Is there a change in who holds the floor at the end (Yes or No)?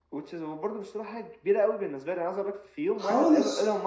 No